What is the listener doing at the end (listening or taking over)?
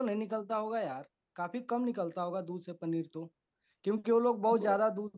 listening